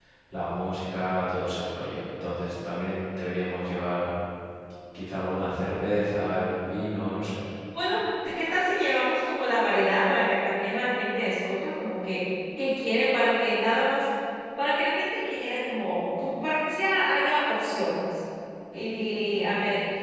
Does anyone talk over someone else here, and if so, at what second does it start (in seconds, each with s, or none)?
none